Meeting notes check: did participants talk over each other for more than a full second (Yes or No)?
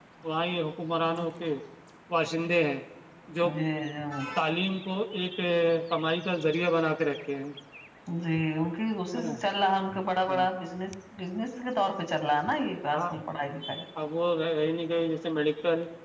No